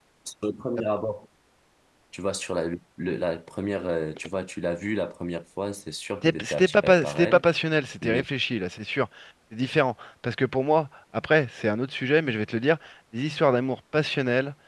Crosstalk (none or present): present